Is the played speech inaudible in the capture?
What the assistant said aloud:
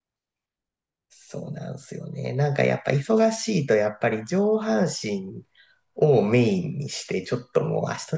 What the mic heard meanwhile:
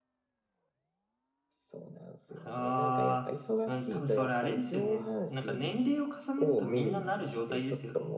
No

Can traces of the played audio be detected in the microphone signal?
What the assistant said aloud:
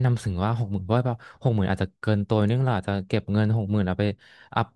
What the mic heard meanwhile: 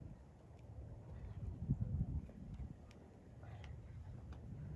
No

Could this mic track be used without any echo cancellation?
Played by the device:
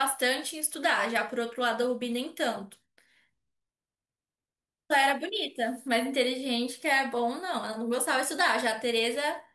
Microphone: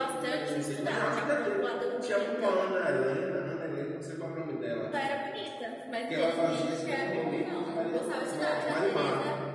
No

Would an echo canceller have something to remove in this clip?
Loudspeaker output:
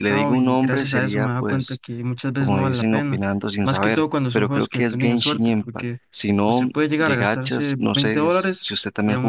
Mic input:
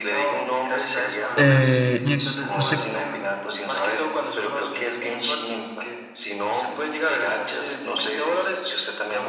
Yes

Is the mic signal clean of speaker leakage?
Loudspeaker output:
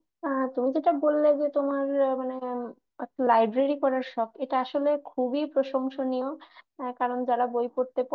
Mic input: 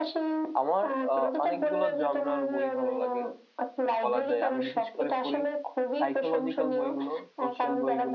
No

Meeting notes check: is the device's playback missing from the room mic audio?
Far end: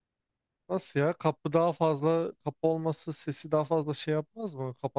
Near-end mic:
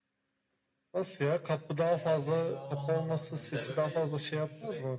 No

